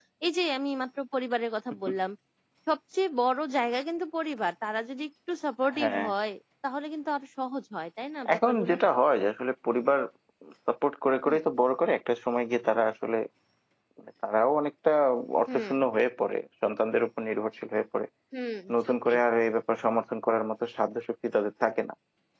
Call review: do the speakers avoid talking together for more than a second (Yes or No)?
Yes